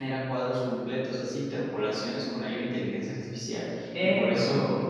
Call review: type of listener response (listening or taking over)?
listening